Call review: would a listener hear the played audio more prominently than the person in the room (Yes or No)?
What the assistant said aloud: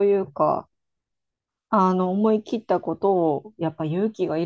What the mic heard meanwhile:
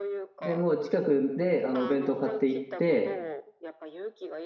No